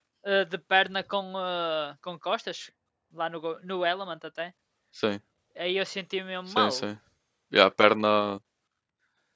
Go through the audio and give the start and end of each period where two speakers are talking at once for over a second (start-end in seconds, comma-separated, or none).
none